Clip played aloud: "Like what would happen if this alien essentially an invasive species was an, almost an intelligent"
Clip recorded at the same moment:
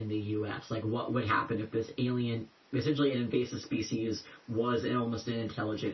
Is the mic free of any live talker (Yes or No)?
Yes